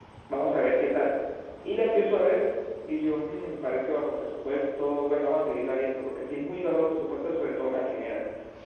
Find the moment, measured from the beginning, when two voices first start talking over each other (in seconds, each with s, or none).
none